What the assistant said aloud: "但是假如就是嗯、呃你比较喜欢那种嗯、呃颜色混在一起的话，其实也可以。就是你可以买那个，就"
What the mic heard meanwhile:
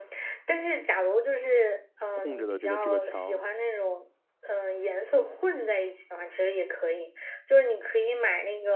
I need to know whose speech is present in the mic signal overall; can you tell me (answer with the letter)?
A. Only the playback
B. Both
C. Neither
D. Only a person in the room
B